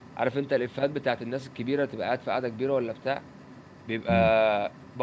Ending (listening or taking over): listening